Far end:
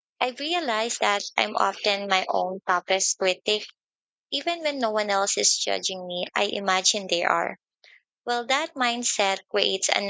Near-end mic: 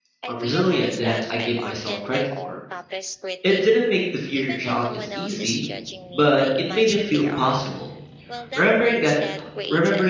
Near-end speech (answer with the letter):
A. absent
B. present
B